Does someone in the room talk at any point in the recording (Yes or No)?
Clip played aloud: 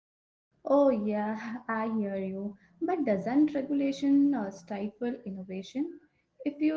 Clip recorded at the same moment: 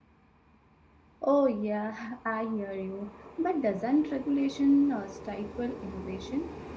No